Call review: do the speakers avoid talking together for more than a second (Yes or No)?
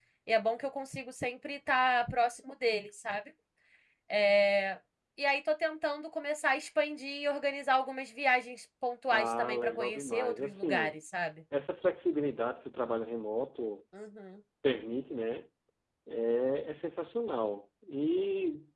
No